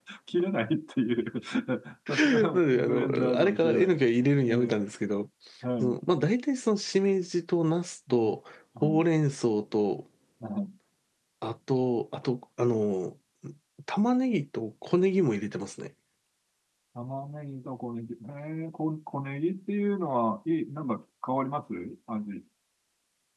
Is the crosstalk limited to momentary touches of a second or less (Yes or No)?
No